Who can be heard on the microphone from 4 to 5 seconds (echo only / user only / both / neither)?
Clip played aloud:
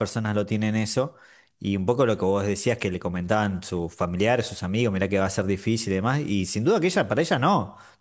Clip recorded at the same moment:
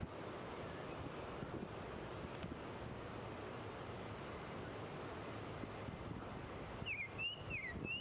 neither